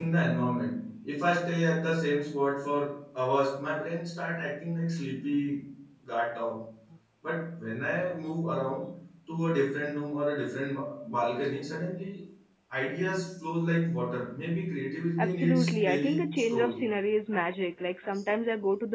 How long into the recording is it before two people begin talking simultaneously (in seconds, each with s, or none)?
15.2 s